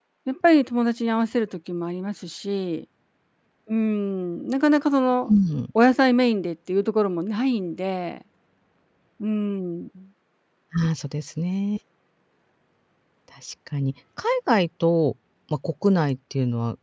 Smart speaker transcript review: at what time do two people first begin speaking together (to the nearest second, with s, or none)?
none